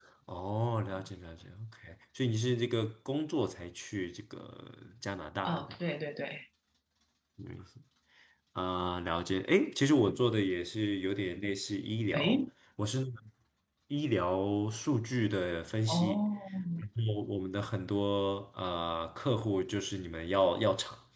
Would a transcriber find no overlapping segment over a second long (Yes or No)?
Yes